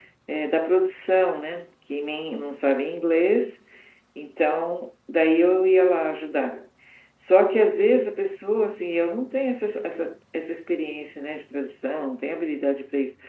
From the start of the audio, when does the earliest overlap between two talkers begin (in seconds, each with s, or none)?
none